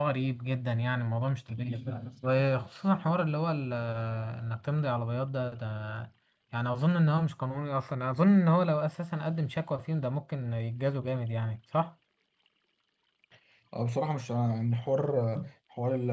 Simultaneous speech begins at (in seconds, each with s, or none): none